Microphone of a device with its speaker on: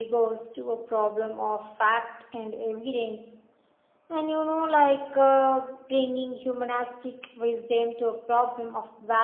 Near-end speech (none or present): none